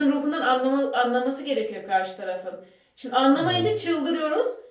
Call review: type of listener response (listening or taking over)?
listening